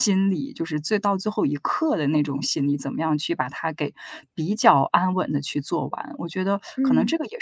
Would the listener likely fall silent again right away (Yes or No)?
Yes